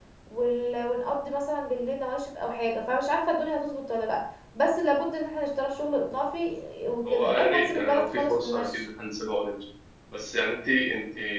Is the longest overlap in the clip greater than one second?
Yes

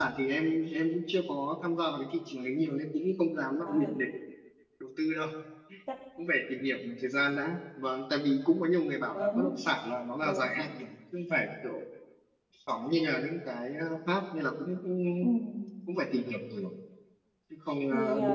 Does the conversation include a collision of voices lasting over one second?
No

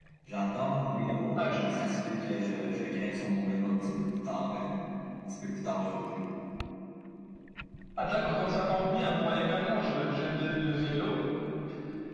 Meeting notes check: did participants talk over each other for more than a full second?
No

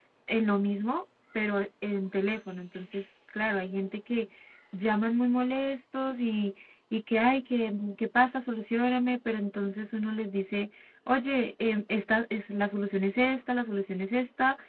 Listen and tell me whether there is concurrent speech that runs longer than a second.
No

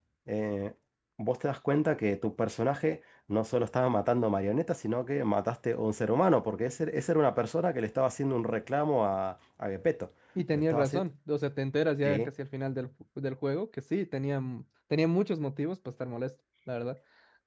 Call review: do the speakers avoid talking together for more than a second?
Yes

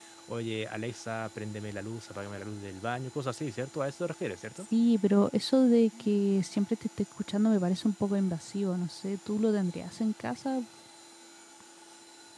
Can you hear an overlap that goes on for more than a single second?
No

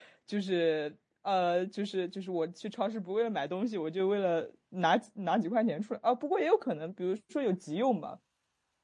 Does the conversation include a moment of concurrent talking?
No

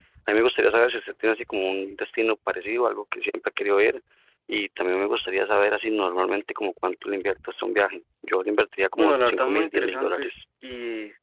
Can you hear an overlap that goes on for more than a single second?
Yes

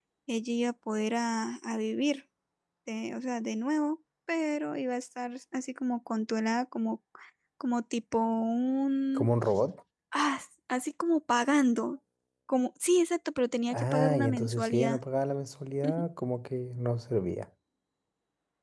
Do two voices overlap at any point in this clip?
Yes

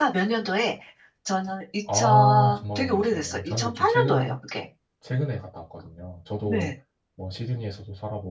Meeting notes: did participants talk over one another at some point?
Yes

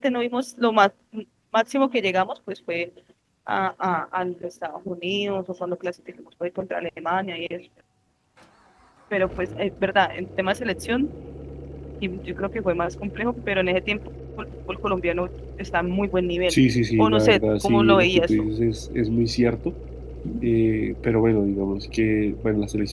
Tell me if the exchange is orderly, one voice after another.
No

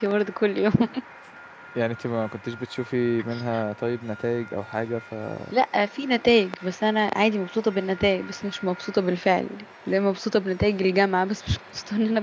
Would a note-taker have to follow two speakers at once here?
No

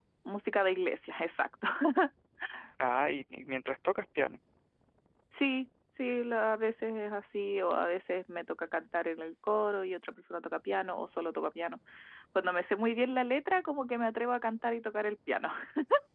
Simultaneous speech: No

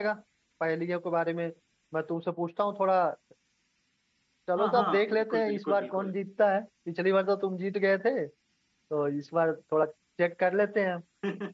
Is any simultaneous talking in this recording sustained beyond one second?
Yes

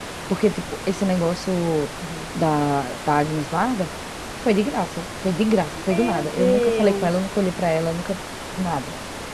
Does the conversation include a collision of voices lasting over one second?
Yes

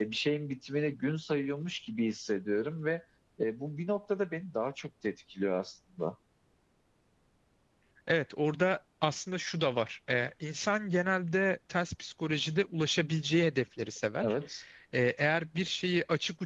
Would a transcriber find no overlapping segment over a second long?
Yes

